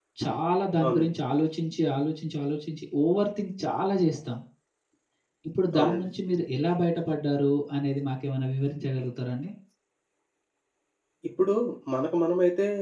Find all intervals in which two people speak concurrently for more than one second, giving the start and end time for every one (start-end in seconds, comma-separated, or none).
none